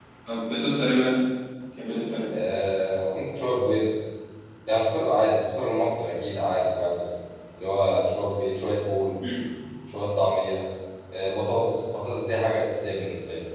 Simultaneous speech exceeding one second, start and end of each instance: none

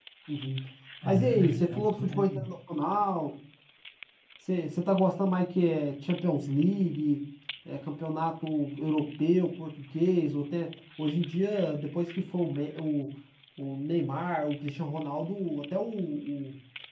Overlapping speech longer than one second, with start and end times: 1.1-2.5

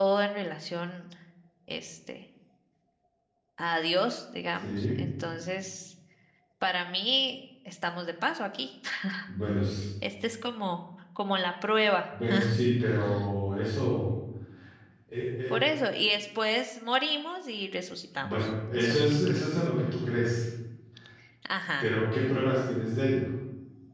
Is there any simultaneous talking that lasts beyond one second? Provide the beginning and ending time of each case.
18.2-19.5

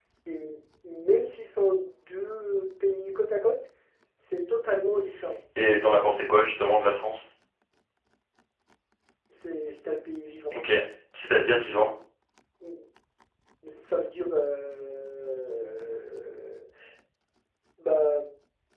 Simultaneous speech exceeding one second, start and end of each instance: none

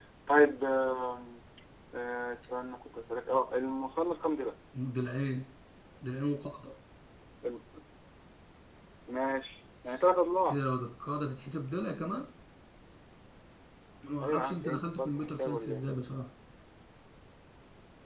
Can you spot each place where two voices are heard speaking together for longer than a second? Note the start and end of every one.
14.2-15.8

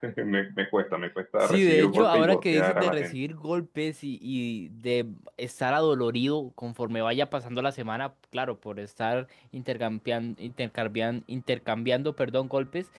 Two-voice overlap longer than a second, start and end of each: 1.4-3.1

